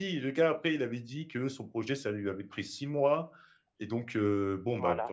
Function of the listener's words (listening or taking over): listening